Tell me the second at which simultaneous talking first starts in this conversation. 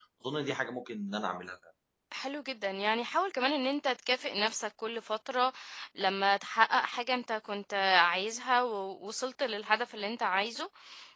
none

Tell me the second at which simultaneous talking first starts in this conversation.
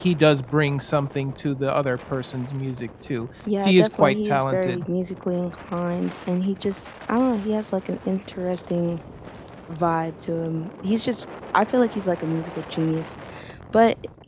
3.4 s

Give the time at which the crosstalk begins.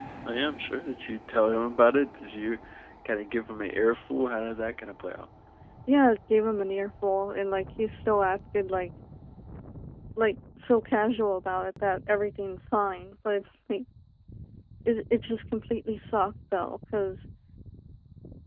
none

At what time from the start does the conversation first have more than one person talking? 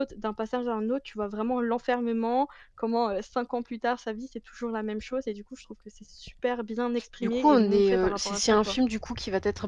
7.2 s

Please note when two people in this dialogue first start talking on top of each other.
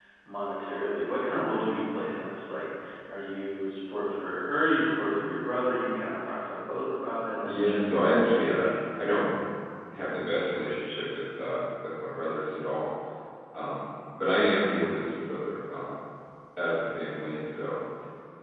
7.4 s

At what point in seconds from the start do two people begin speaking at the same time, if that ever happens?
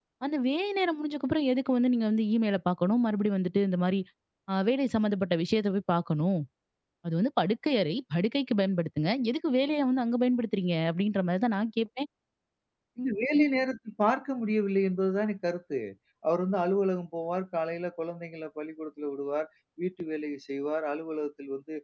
none

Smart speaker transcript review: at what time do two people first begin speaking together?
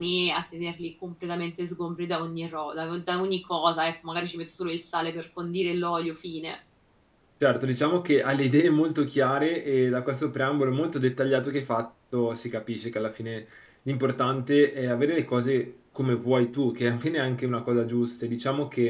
none

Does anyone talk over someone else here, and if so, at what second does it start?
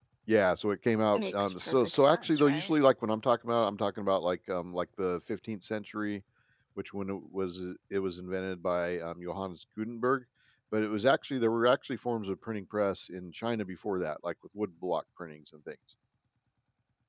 1.2 s

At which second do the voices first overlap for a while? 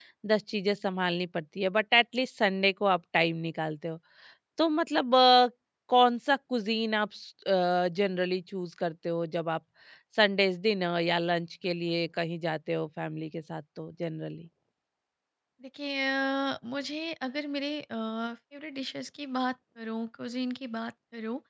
none

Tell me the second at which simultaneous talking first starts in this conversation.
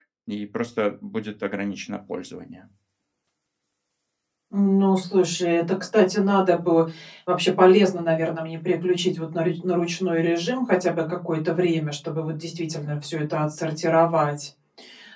none

